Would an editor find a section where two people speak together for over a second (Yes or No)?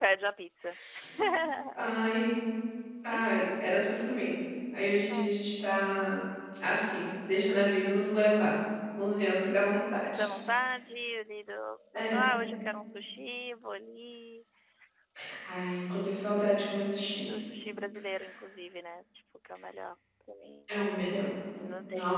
No